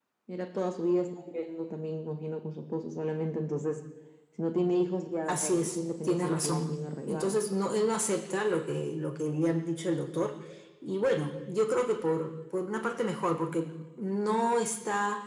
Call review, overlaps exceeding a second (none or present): present